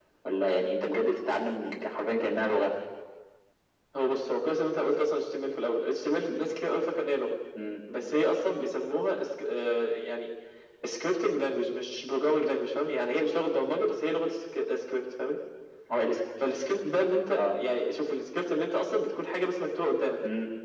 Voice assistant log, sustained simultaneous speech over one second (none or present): none